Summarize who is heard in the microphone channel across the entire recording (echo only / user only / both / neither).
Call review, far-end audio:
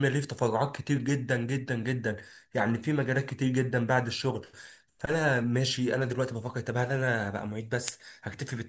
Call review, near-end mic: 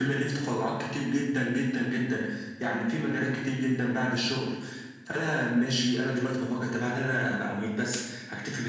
echo only